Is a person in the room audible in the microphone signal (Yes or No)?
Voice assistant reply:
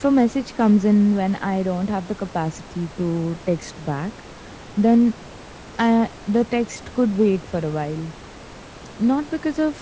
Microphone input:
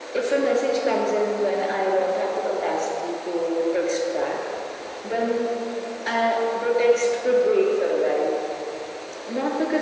No